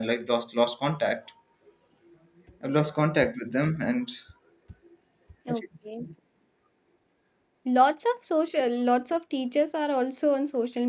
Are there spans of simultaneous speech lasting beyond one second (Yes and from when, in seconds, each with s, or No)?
No